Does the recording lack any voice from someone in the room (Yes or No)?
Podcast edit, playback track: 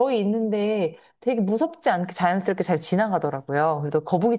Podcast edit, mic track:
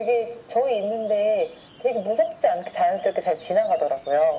Yes